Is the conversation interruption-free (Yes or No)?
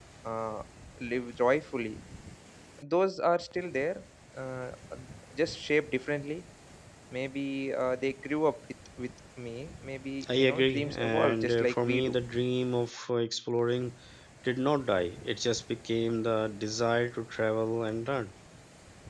No